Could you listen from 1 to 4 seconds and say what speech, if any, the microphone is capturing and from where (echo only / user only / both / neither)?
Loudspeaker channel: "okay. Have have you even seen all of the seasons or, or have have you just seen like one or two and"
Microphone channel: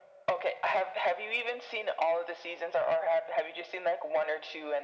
echo only